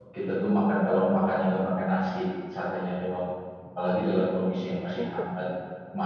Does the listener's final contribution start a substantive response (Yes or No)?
No